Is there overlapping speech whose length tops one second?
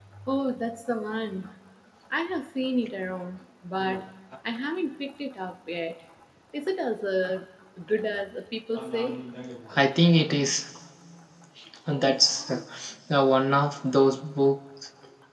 No

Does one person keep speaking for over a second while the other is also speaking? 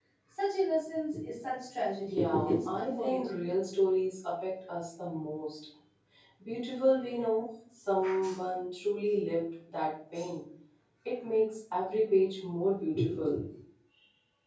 Yes, from 2.1 s

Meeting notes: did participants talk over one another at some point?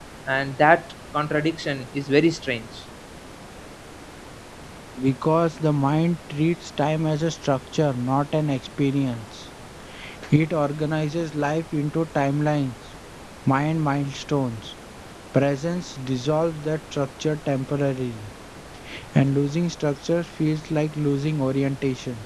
No

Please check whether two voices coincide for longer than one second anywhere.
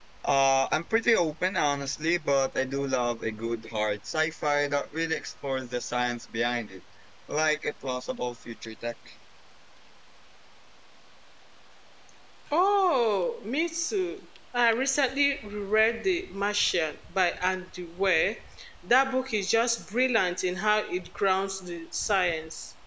No

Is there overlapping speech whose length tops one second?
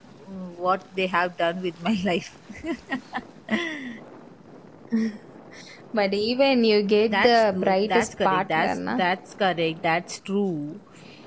Yes, from 7.1 s

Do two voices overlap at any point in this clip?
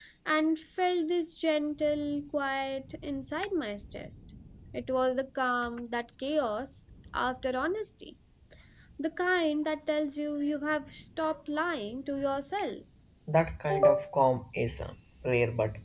No

